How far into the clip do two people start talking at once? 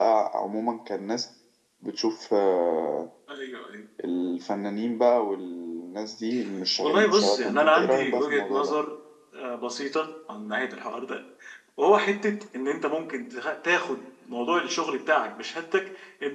6.8 s

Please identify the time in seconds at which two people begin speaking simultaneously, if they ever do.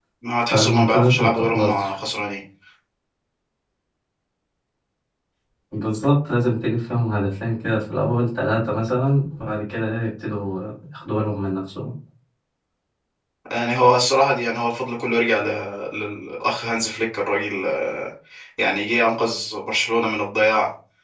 0.5 s

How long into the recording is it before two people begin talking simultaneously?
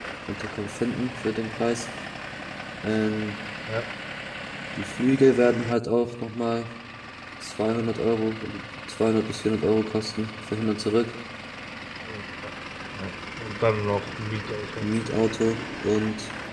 none

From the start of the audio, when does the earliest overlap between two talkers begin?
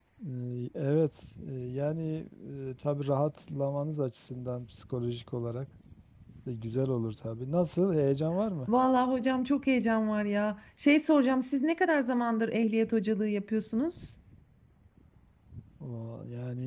none

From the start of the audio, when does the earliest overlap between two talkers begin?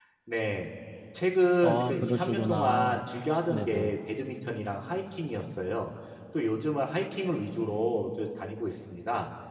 1.6 s

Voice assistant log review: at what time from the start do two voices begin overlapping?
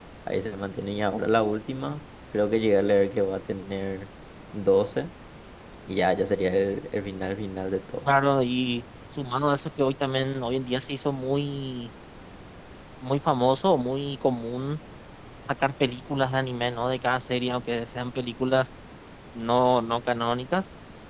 none

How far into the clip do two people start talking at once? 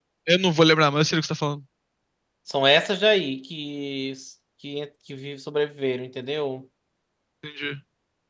none

